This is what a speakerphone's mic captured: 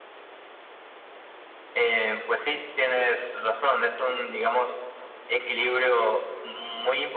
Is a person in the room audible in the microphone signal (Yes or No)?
No